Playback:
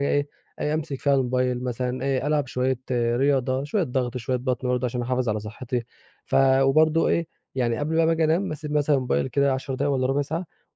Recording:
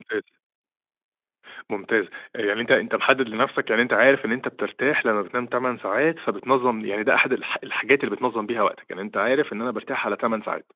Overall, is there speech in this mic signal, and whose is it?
user only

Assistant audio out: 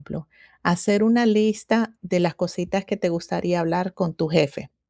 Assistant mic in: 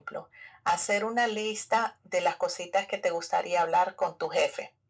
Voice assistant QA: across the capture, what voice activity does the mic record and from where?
echo only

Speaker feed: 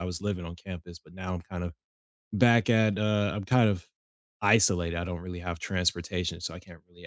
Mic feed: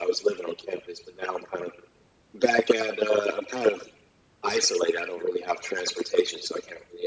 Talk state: echo only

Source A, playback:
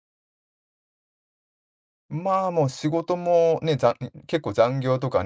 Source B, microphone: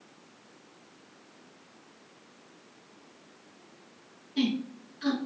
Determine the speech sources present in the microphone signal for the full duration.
user only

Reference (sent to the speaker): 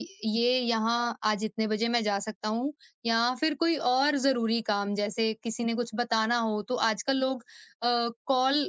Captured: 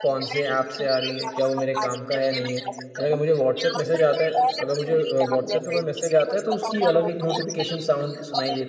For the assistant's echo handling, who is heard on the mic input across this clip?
both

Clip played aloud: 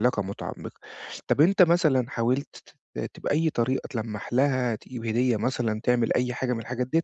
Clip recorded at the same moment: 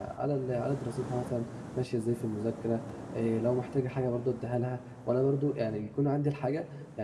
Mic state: user only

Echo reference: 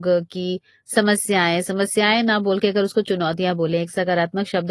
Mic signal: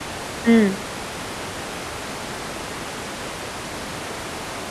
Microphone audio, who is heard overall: user only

